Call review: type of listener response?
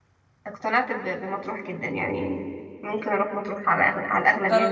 taking over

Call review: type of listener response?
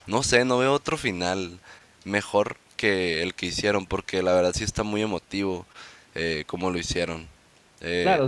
taking over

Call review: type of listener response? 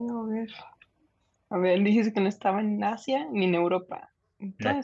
taking over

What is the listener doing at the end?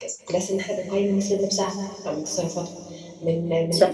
listening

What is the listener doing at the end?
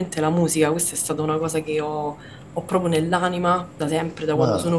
listening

